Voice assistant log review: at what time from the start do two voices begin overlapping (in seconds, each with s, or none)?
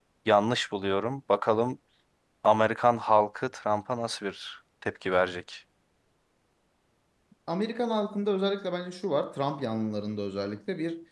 none